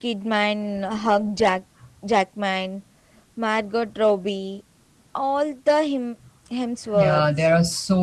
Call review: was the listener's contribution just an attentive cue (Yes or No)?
No